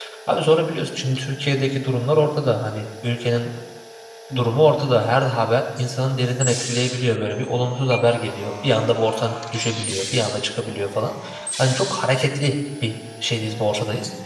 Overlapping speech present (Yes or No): No